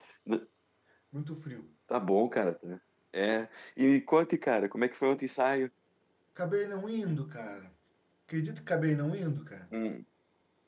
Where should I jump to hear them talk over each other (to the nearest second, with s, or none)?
none